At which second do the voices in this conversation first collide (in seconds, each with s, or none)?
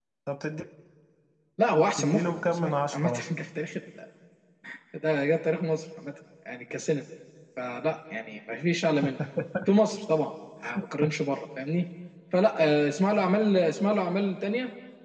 2.0 s